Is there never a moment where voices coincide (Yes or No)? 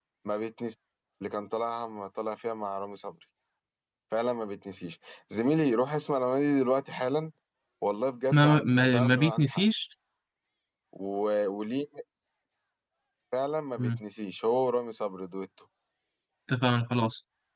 No